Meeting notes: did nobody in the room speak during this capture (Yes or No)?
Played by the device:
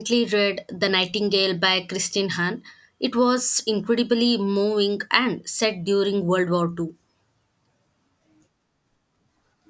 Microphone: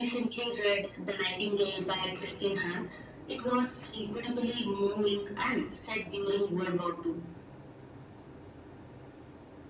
Yes